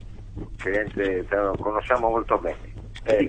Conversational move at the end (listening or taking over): taking over